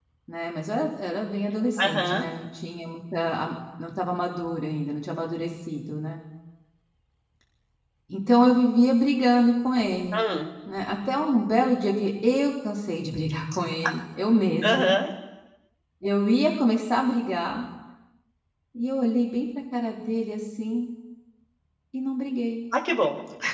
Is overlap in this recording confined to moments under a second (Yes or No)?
Yes